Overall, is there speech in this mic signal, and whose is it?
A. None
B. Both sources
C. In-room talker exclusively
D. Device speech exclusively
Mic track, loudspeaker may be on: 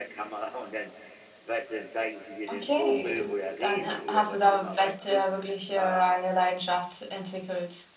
B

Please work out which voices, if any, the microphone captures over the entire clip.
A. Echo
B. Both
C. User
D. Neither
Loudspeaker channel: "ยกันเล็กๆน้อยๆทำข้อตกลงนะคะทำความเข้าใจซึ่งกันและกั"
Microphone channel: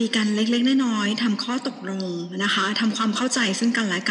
A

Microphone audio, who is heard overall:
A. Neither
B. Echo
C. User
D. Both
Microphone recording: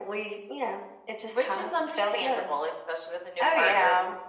B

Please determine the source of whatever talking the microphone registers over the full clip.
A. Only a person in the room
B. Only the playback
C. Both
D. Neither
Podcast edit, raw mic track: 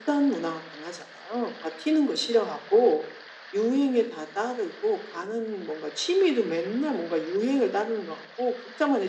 B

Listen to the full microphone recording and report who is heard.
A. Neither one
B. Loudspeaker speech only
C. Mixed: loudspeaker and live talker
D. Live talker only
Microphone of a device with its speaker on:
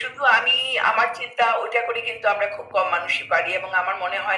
B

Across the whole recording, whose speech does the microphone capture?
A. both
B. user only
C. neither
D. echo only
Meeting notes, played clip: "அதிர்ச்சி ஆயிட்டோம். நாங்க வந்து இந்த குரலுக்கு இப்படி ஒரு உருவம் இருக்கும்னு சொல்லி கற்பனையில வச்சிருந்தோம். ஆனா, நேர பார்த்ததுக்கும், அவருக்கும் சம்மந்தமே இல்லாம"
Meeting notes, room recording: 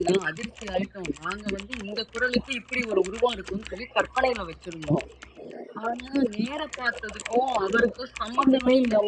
D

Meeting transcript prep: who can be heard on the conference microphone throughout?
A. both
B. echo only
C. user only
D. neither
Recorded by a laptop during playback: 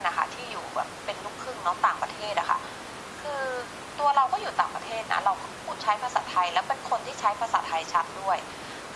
B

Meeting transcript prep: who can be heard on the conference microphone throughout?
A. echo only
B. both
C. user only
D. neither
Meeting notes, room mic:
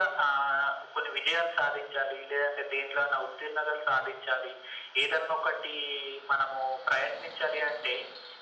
A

